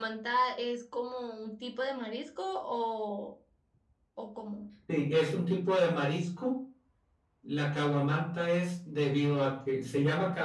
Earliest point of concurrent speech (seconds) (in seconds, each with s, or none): none